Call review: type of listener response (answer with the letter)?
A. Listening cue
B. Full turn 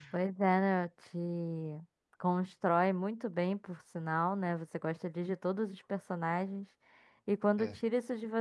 A